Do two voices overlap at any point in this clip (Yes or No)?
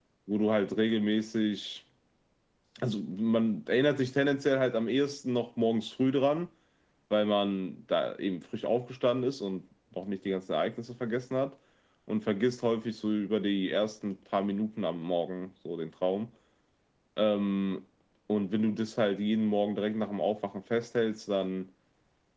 No